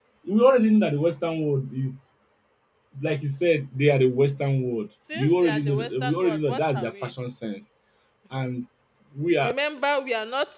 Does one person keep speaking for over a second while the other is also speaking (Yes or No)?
Yes